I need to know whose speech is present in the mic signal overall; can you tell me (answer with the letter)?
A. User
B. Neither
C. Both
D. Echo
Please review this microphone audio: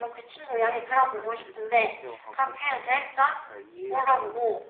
C